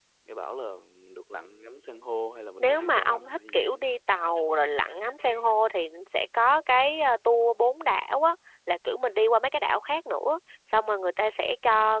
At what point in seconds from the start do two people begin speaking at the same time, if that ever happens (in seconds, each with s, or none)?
2.6 s